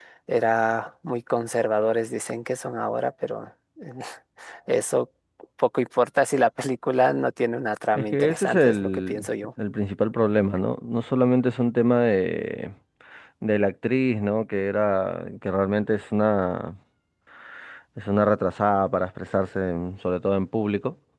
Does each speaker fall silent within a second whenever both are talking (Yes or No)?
No